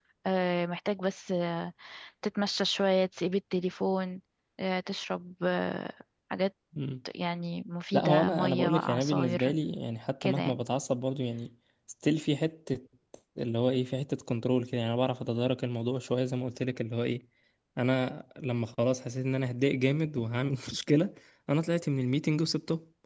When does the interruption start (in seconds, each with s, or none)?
7.9 s